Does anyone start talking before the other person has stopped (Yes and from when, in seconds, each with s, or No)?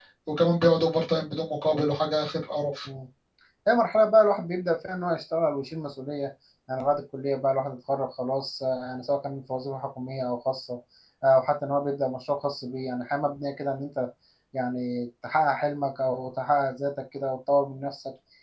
No